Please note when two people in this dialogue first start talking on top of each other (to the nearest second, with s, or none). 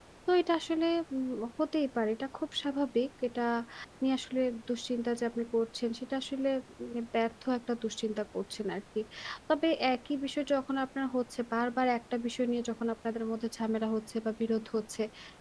none